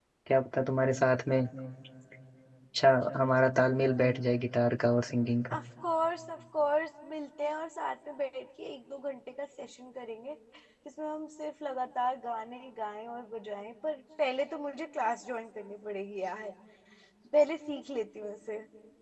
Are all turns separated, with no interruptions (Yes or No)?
Yes